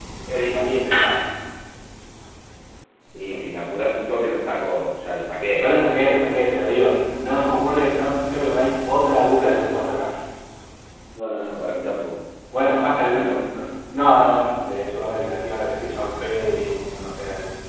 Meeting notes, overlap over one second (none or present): none